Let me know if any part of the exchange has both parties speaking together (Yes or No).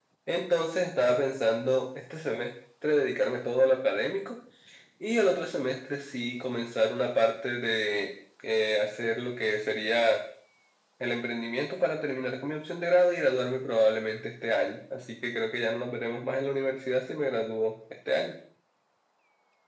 No